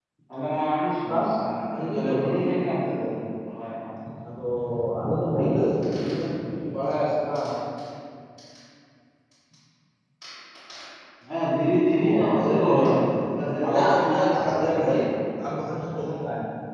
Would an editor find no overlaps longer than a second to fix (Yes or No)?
No